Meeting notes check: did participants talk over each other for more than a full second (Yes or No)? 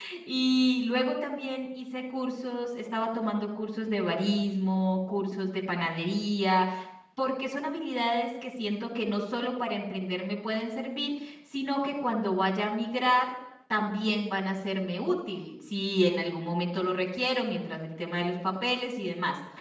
No